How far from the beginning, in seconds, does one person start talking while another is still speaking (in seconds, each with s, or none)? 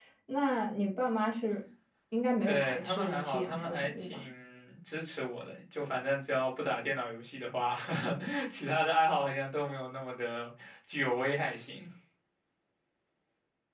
2.4 s